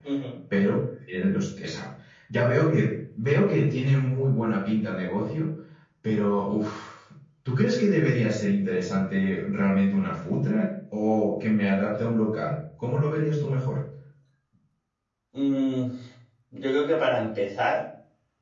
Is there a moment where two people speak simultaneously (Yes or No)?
No